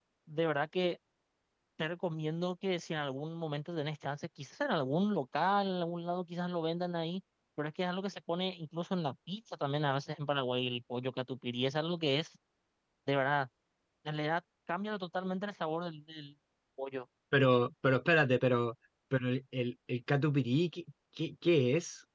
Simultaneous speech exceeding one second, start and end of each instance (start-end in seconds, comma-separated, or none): none